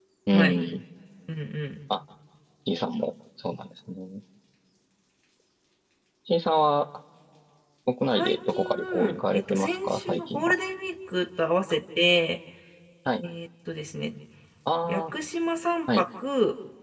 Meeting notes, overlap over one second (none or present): present